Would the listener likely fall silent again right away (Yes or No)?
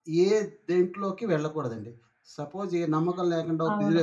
Yes